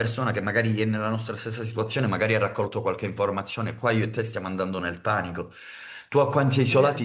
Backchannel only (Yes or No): Yes